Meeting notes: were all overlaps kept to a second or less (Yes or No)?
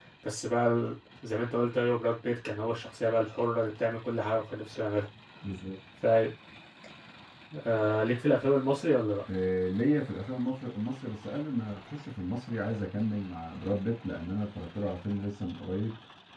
Yes